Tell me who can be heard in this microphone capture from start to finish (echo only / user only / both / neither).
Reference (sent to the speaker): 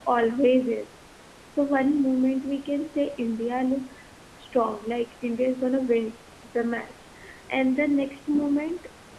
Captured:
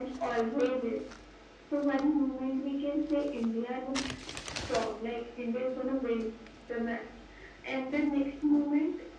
echo only